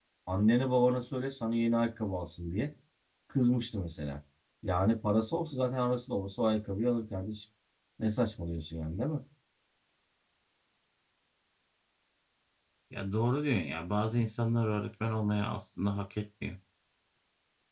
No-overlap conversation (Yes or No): Yes